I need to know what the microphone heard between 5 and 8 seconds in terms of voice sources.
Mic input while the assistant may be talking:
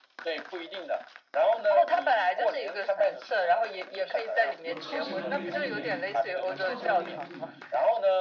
both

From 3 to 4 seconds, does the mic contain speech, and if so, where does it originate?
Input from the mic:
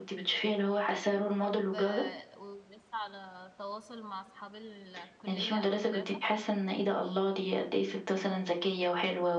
user only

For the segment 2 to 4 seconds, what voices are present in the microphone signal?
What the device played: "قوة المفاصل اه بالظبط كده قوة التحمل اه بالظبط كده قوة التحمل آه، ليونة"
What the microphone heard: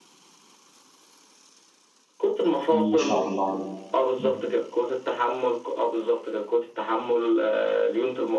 both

